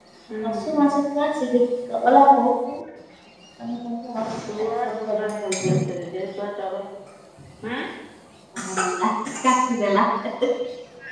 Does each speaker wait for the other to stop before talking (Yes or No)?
No